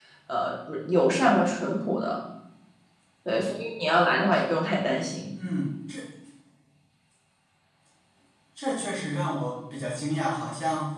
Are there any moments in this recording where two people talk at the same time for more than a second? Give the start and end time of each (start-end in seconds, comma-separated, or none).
none